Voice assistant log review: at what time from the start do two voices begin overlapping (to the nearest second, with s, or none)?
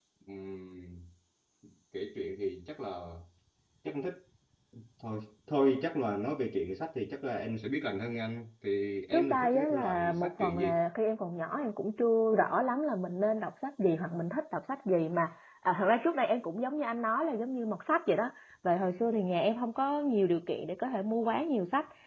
9 s